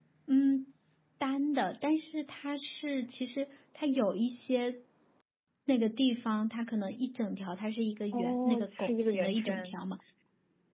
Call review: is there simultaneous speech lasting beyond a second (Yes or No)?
Yes